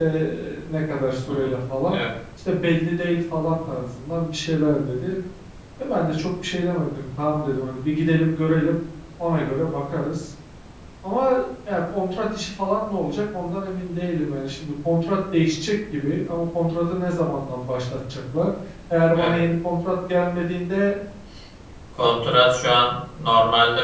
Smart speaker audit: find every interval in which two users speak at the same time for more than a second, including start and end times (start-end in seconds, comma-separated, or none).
none